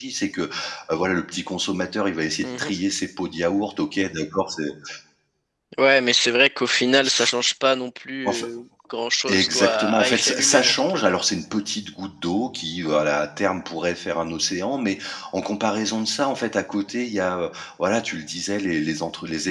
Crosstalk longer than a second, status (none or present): present